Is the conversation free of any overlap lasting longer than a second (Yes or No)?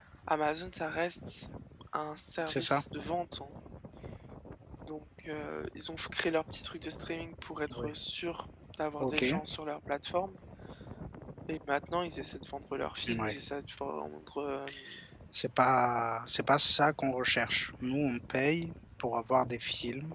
Yes